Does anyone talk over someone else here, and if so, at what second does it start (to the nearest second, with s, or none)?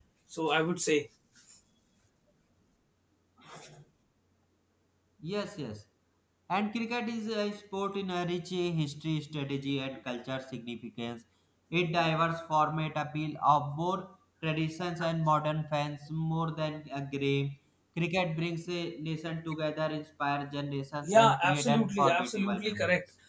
21 s